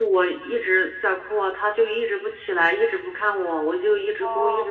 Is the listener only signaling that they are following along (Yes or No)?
Yes